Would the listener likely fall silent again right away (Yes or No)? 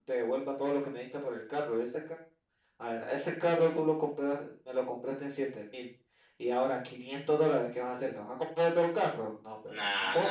No